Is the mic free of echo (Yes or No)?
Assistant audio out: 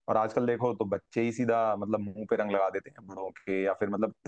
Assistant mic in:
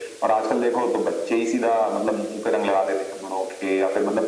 No